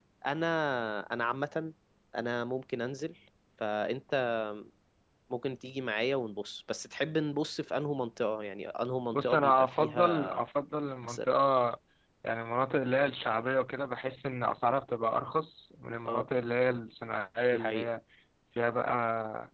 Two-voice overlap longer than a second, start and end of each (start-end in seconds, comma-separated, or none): 9.1-10.4